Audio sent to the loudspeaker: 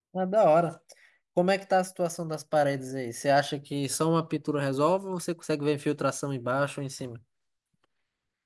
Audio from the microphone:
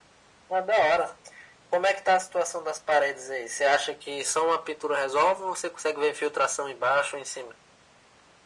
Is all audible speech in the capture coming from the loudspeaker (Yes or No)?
Yes